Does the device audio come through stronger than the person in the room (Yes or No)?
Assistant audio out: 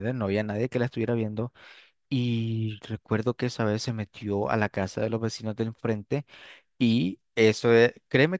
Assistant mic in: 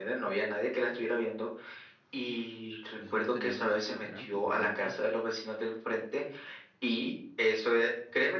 Yes